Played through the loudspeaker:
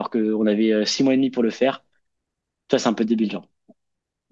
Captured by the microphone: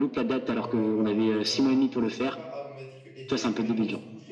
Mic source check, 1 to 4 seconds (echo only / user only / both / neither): both